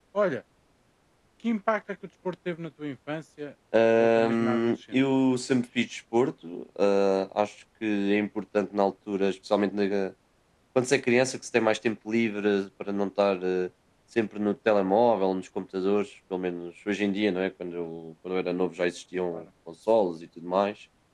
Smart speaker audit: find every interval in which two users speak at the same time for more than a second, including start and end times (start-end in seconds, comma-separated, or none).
3.8-5.0